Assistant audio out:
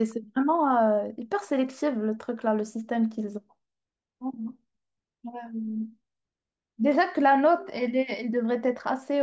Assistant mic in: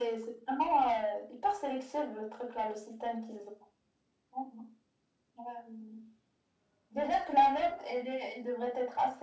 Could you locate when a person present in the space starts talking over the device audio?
none

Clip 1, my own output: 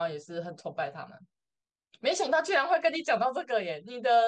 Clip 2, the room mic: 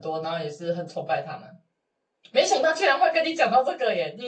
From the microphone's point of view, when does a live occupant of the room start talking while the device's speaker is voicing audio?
none

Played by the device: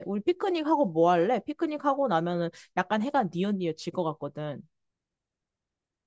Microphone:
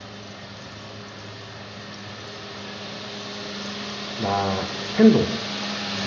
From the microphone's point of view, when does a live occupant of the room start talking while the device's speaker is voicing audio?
4.2 s

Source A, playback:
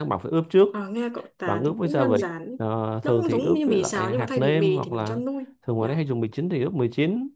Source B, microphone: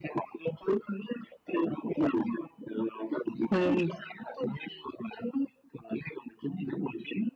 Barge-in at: 3.5 s

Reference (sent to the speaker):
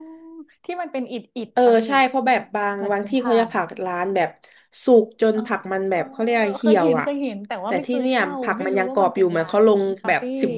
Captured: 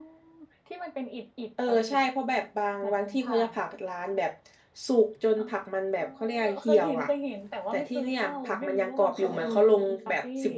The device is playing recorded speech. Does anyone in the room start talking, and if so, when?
9.1 s

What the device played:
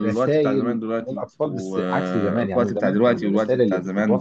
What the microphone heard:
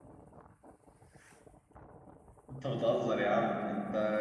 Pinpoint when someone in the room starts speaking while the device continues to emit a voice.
2.5 s

